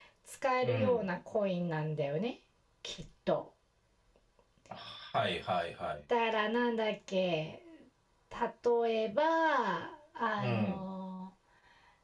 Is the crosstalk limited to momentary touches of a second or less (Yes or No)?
Yes